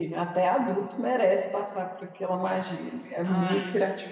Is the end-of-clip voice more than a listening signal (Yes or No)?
No